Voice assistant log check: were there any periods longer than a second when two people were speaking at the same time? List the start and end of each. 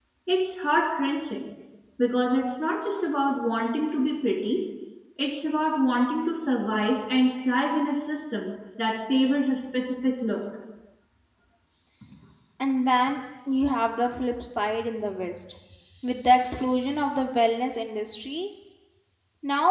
none

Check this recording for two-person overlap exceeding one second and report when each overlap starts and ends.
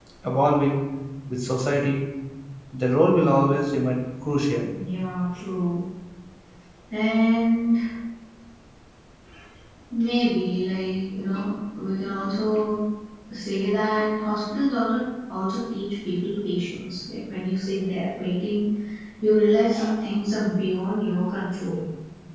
none

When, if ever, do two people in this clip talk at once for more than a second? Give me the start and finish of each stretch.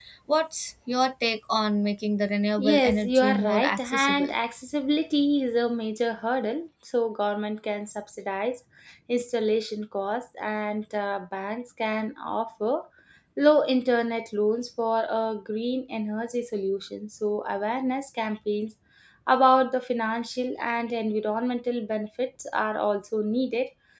2.6-4.3

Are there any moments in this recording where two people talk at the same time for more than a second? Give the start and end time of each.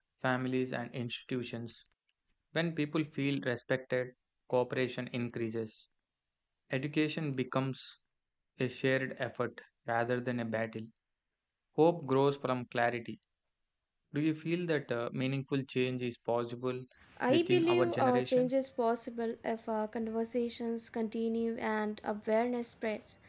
17.3-18.5

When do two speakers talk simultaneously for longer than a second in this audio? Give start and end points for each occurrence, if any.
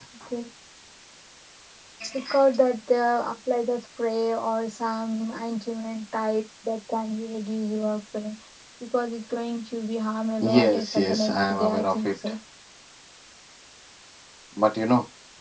10.4-12.1

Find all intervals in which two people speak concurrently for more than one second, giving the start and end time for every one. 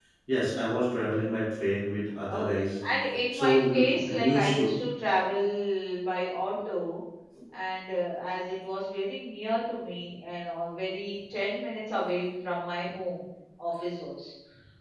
3.3-4.7

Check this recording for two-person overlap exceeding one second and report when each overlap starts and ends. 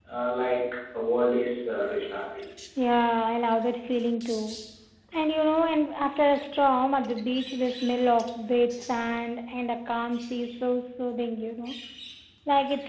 none

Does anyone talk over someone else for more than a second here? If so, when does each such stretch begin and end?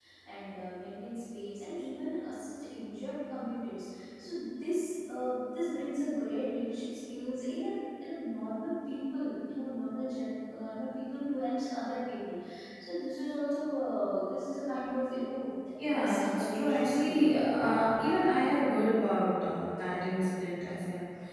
15.8-17.3

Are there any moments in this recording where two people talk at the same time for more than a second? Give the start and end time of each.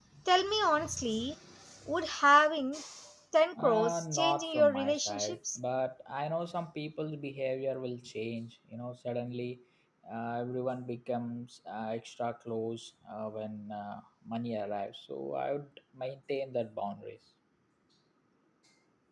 3.6-5.6

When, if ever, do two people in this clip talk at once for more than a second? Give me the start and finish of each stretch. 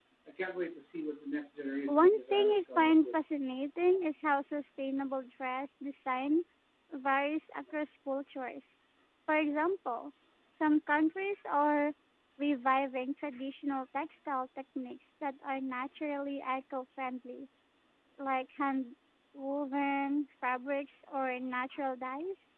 1.9-3.1

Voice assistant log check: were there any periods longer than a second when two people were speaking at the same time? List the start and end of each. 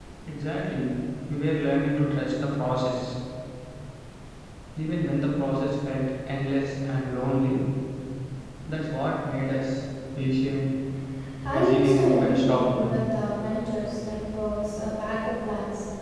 11.5-12.9

